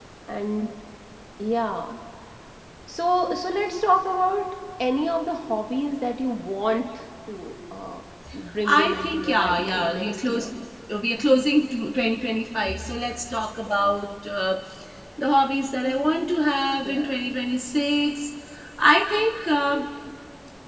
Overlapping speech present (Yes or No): Yes